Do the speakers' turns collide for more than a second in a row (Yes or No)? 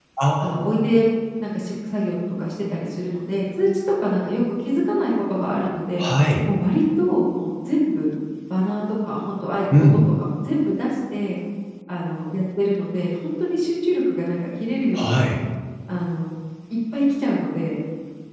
No